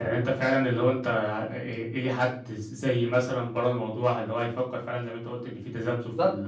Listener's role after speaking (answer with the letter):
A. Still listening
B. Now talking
A